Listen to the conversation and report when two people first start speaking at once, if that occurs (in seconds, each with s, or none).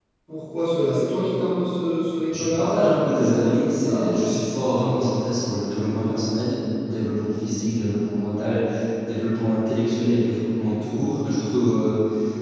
2.4 s